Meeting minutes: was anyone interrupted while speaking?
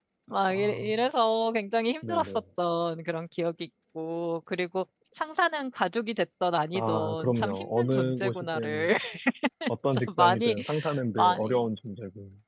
Yes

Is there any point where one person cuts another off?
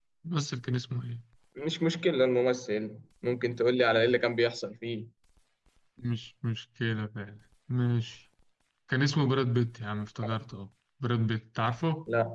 No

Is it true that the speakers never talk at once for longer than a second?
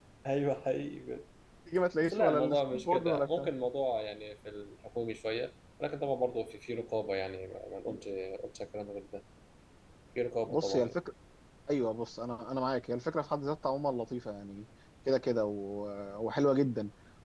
No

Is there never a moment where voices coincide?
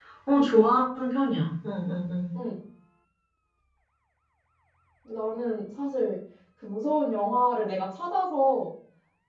Yes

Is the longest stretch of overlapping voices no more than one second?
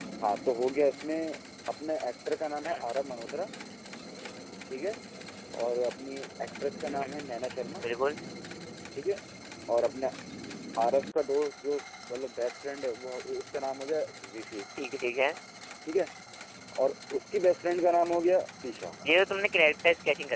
Yes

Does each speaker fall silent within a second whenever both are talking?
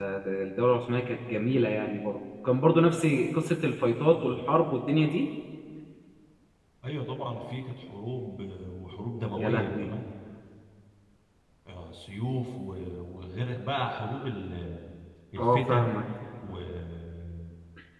Yes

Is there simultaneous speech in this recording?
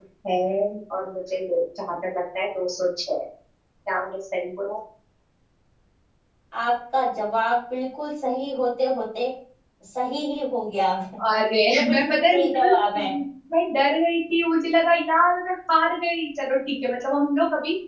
Yes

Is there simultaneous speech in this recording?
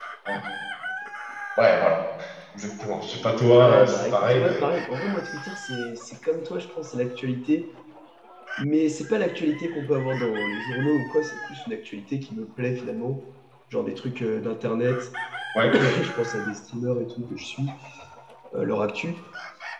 Yes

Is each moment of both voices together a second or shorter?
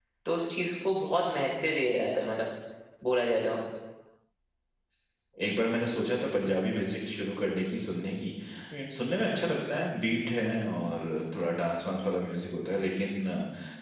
Yes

